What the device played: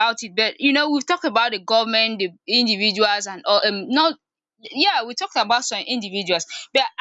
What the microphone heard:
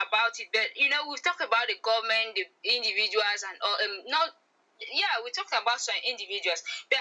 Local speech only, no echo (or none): none